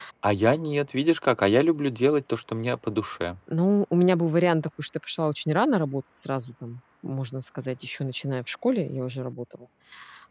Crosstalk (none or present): none